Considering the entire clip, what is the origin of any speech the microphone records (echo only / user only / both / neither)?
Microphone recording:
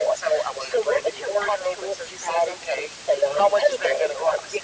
echo only